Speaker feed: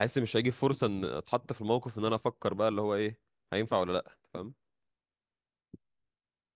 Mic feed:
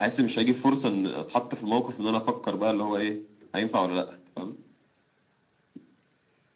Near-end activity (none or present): none